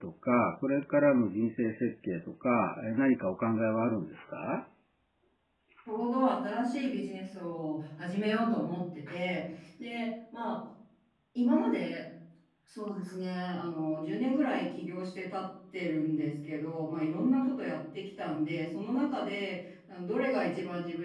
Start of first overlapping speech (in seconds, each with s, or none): none